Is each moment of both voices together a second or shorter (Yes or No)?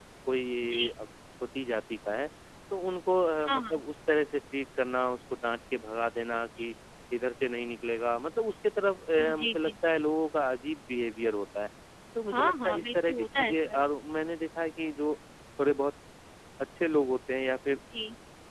No